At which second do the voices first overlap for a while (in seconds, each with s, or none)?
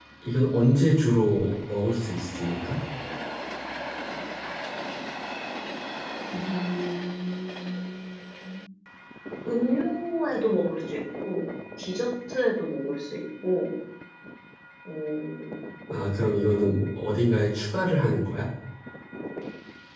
none